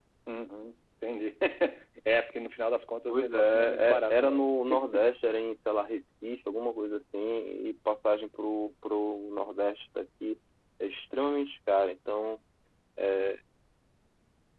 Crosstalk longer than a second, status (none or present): present